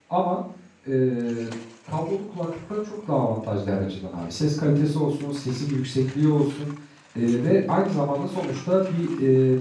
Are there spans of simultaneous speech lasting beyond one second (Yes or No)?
No